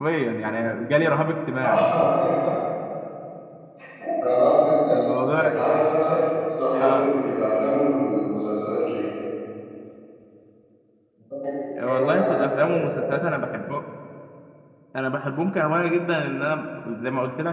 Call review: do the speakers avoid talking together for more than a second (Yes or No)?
No